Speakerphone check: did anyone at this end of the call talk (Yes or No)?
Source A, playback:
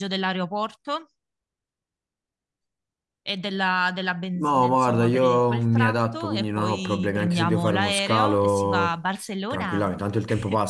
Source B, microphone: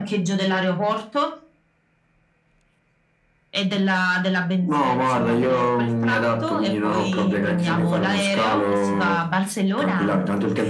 No